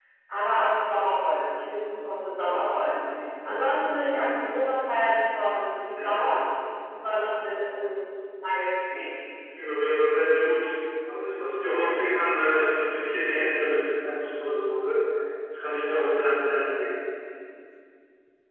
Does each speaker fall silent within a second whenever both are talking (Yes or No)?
Yes